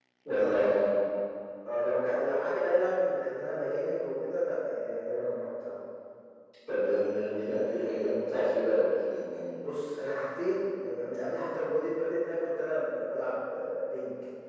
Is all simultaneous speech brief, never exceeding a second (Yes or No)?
Yes